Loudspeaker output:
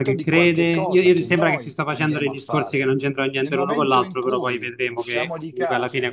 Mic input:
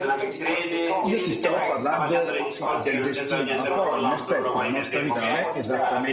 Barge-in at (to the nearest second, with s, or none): 1 s